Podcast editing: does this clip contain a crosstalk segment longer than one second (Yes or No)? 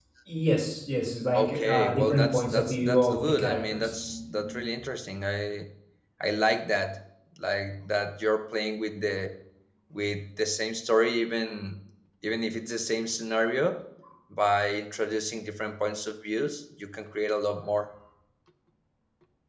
Yes